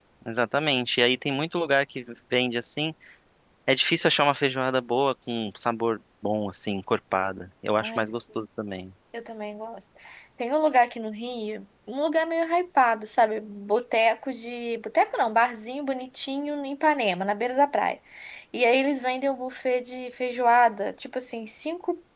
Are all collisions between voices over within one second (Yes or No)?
Yes